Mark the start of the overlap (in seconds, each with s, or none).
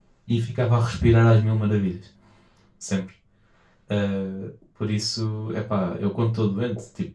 none